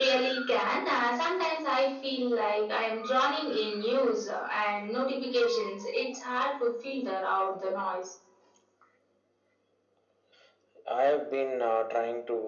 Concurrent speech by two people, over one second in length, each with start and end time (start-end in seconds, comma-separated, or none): none